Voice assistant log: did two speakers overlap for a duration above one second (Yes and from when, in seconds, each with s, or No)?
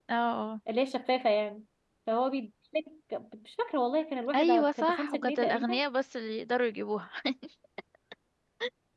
Yes, from 4.3 s